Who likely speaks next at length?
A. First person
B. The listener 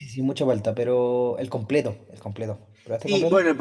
B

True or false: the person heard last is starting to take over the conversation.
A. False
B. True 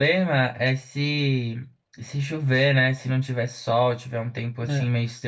A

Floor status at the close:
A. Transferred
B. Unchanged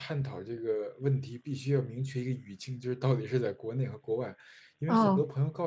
B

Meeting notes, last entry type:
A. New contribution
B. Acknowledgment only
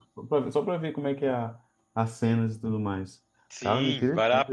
A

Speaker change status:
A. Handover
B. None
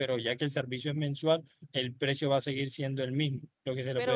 A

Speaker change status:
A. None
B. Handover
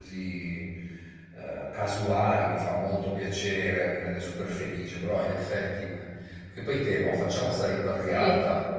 A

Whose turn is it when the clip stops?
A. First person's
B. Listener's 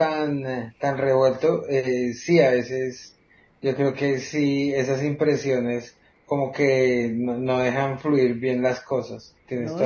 B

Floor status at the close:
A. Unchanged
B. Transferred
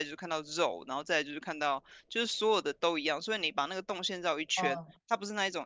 A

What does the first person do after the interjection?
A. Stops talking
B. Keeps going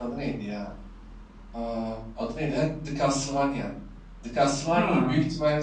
B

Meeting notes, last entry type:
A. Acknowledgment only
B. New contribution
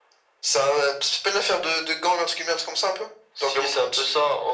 B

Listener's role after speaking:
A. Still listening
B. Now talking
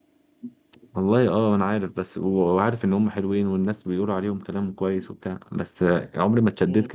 A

